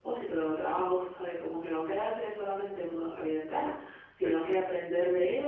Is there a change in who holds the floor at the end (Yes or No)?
No